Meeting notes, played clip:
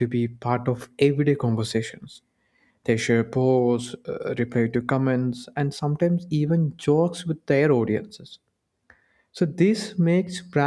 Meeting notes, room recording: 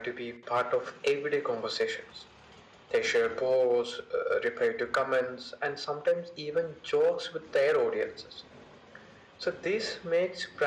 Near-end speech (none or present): none